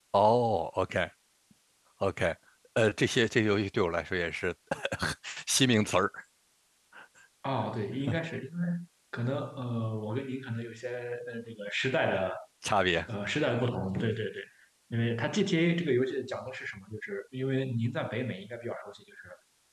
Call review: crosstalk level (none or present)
none